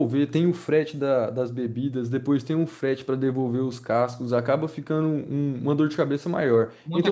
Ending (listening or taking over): taking over